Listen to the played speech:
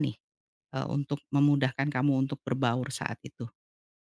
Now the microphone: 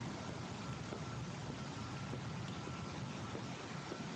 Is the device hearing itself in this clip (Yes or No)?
No